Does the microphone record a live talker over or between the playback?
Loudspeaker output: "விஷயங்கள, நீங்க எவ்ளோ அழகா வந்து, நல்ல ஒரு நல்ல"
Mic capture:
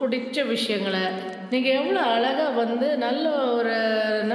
No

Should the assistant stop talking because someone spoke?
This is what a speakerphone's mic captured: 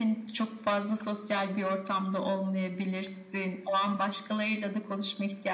No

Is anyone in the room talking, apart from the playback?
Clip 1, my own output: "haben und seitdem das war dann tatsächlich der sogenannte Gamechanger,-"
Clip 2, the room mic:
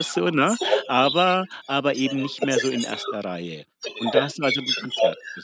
Yes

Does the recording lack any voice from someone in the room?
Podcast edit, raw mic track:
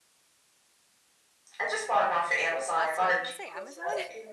No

